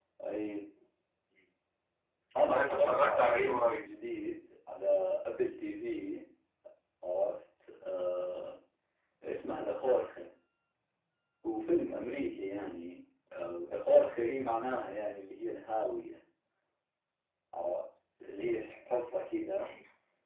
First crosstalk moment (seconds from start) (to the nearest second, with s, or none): 2 s